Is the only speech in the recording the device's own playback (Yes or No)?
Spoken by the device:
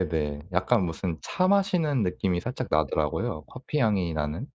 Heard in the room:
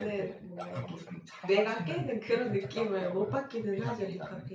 No